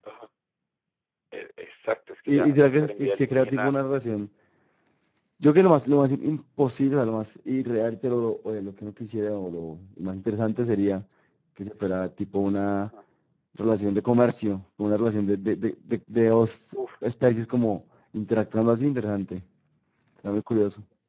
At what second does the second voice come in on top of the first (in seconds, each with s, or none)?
2.3 s